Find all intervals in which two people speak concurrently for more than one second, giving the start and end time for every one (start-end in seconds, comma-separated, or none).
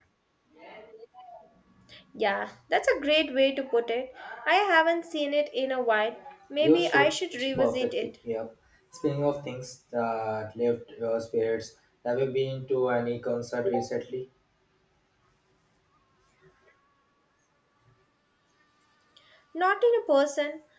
6.6-8.1